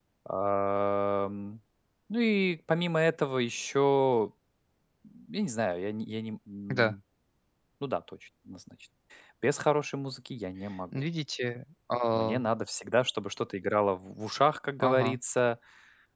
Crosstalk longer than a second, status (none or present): none